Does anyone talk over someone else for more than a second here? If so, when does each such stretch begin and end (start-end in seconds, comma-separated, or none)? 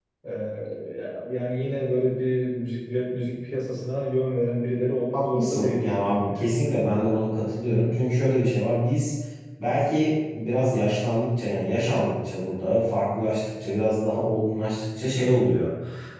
5.1-6.5